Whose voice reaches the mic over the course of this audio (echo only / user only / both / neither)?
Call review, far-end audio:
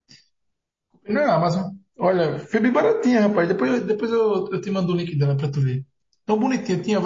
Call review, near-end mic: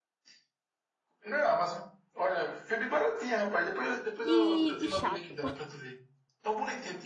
both